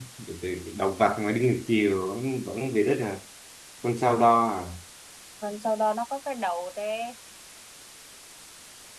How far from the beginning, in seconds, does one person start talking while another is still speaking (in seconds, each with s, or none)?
none